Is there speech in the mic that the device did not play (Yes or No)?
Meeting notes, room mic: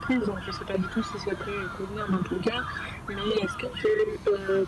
No